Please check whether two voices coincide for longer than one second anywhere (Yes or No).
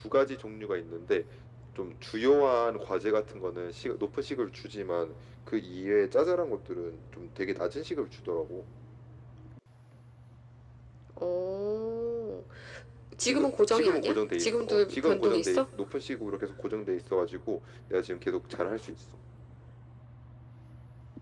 Yes